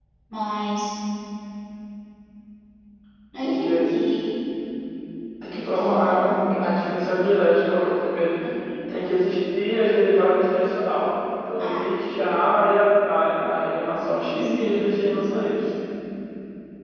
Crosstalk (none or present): present